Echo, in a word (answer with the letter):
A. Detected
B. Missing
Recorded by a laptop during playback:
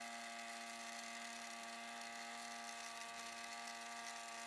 B